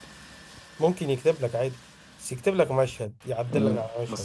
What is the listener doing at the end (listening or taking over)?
taking over